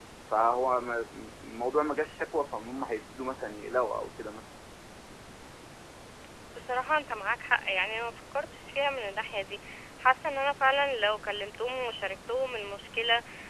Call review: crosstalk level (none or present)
none